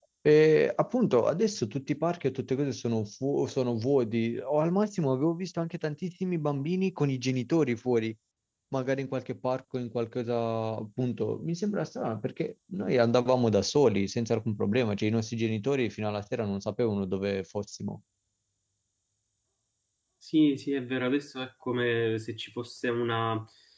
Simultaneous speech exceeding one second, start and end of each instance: none

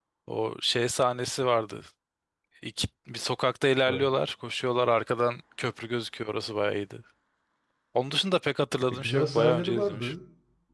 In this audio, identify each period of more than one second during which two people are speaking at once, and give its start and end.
8.9-10.1

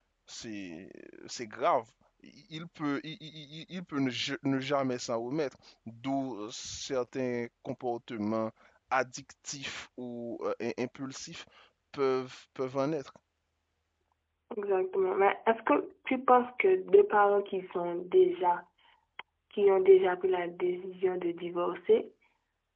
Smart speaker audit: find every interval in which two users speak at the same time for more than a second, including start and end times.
none

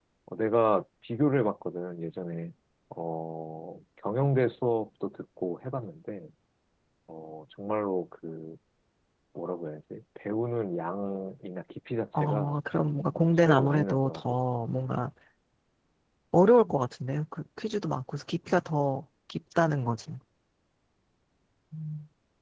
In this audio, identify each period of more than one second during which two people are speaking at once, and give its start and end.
12.1-14.2

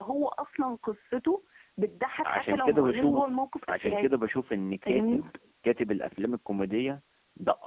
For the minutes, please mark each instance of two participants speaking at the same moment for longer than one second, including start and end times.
2.2-4.1

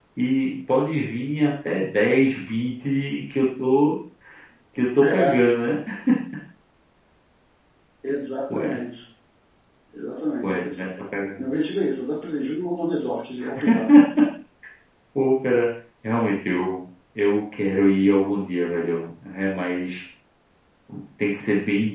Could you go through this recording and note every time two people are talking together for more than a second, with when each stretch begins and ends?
none

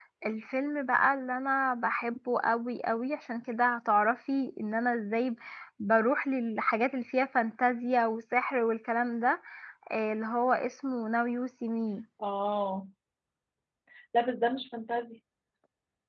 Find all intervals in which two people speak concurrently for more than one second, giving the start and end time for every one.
none

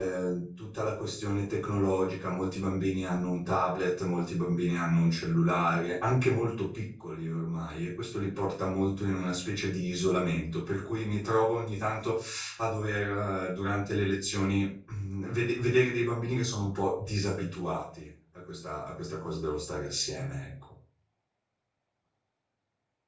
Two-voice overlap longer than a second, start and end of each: none

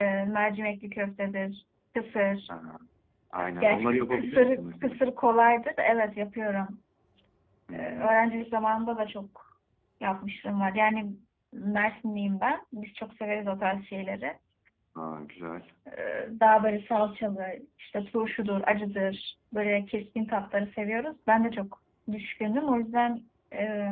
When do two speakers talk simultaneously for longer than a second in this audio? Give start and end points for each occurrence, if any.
3.6-5.0

